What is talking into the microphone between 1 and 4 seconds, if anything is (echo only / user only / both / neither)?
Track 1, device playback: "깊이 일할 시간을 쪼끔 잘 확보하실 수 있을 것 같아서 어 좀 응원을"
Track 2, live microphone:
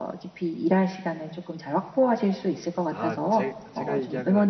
both